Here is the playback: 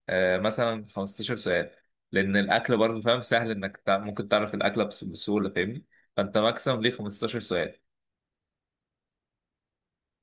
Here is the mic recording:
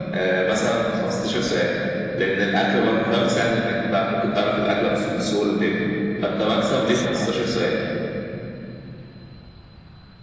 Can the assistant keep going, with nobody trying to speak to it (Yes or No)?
No